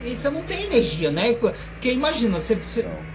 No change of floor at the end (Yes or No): Yes